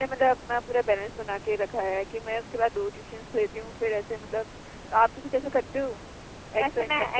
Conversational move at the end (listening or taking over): taking over